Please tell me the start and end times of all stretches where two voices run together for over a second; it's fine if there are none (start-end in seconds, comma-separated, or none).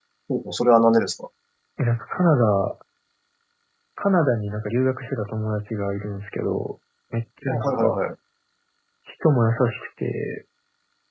none